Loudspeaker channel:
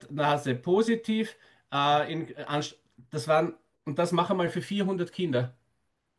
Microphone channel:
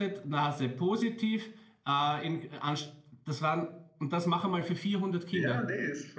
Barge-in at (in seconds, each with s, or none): 5.3 s